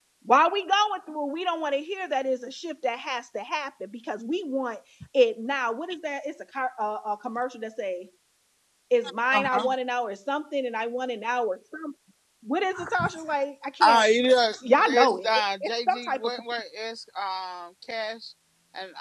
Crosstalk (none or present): present